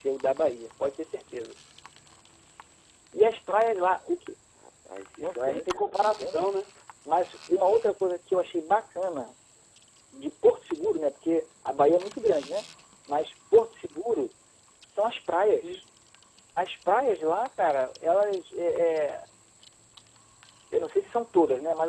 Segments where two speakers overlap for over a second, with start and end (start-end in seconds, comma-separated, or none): 5.2-6.6